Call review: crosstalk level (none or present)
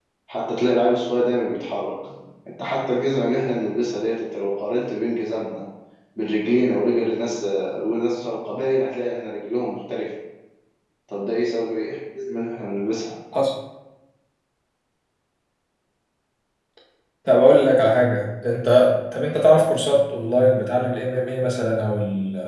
none